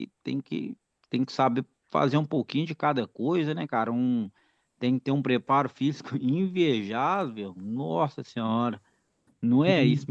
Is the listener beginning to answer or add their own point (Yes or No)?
Yes